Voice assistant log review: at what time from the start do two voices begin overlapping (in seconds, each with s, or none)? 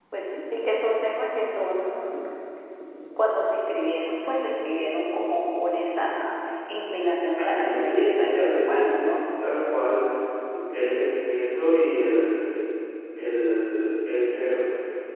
7.4 s